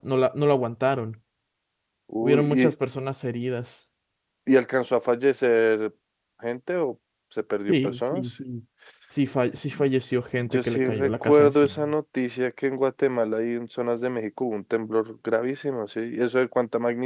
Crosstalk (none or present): present